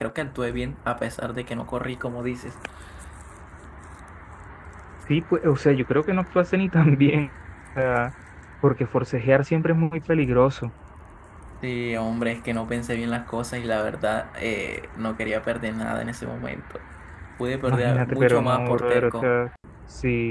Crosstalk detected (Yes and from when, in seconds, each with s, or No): Yes, from 17.6 s